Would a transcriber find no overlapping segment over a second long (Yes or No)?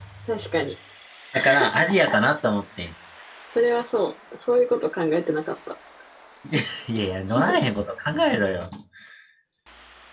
Yes